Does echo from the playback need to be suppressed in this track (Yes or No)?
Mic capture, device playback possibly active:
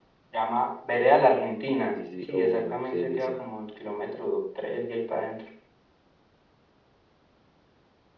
Yes